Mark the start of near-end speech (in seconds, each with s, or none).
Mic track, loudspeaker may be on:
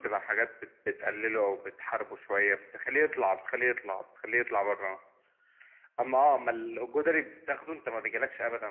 none